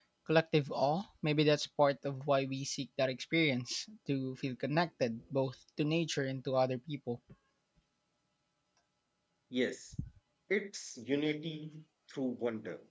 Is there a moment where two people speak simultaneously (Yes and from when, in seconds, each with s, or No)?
No